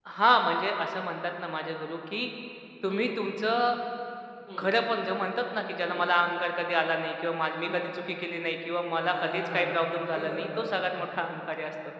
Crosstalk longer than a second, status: present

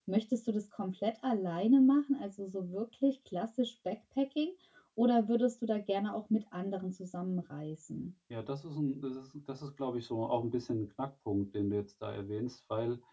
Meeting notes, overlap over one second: none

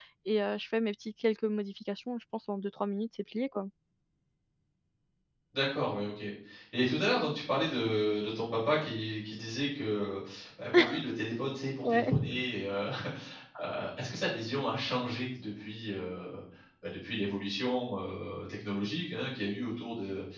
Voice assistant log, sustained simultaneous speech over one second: none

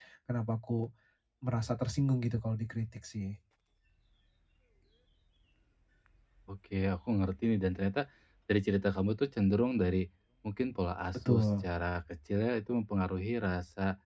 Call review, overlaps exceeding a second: none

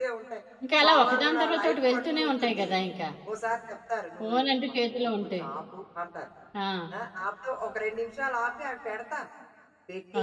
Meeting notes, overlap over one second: present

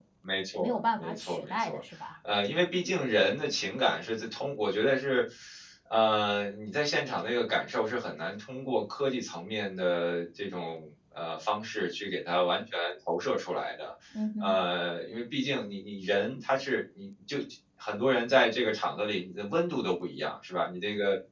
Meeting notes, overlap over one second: present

